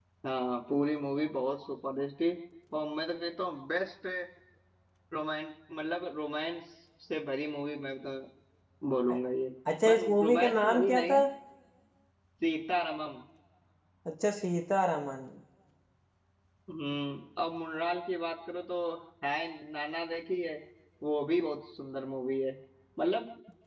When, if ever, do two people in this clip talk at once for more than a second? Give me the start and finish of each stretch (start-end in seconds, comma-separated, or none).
9.8-11.2